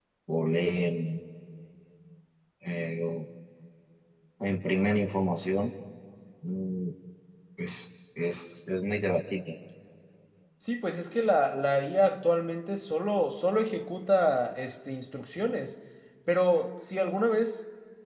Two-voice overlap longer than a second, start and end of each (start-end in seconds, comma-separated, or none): none